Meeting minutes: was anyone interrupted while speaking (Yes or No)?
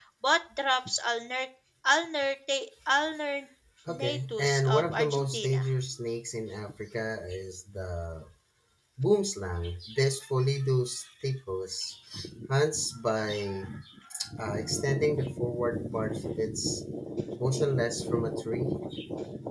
Yes